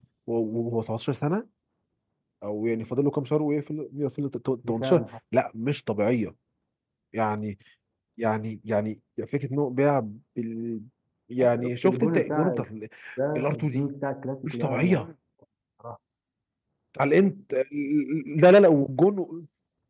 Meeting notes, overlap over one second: present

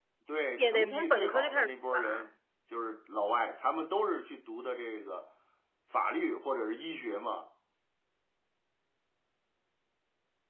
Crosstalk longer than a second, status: present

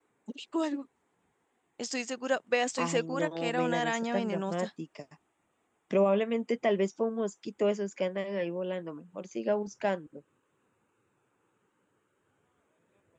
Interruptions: present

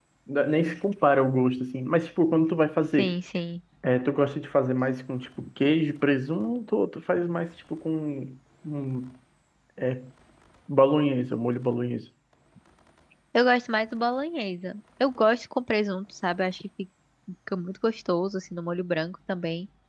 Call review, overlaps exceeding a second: none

